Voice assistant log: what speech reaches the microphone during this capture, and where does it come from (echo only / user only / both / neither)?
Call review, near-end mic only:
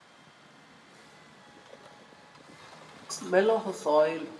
user only